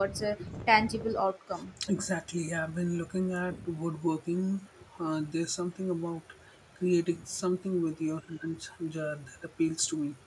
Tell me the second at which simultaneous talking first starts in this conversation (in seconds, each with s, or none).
none